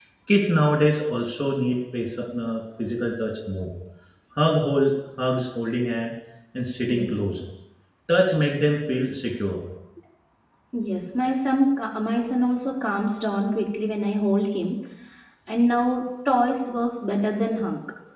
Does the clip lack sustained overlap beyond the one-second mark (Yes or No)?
Yes